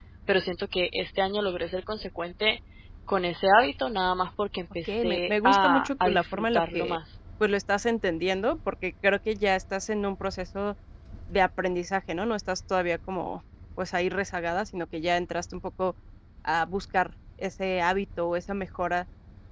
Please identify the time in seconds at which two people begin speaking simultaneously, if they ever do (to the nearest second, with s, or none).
5 s